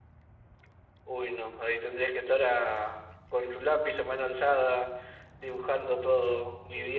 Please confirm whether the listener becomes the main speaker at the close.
Yes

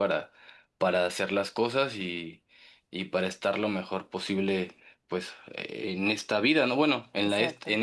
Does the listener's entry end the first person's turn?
No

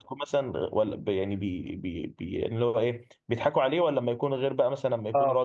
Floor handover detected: No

